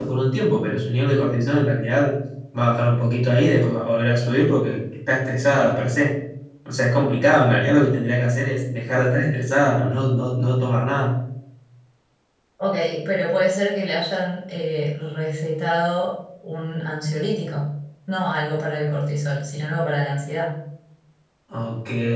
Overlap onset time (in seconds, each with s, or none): none